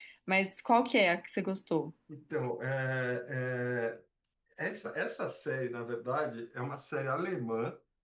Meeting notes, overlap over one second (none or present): none